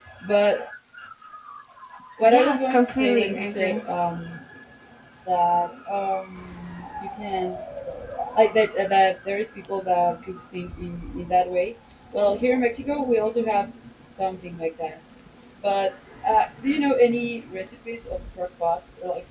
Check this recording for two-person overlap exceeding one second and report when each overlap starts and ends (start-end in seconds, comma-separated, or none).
2.3-3.8